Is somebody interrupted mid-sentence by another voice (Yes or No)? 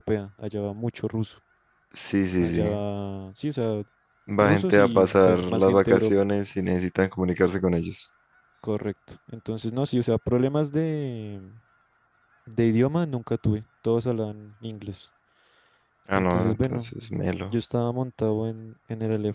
Yes